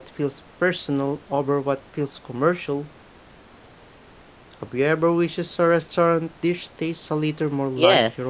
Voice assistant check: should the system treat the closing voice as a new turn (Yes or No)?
Yes